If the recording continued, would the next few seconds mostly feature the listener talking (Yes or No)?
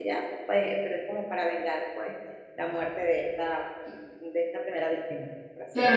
Yes